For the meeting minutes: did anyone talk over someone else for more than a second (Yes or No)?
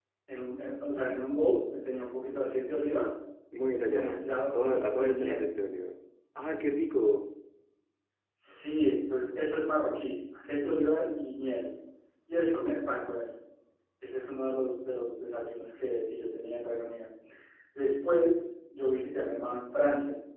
Yes